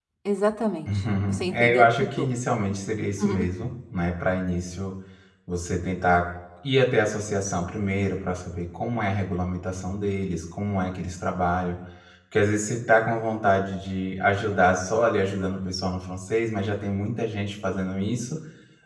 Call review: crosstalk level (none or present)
present